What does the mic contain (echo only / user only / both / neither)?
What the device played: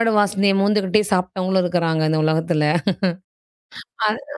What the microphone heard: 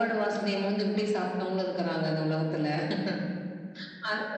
echo only